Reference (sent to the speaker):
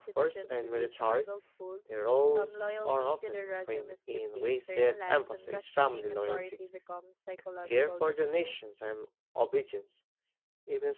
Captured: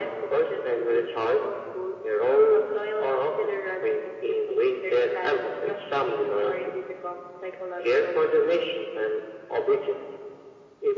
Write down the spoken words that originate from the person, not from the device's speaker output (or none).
none